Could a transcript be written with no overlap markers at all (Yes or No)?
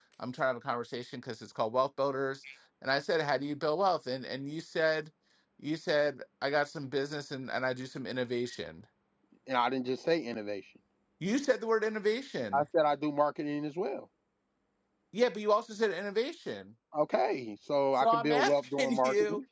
No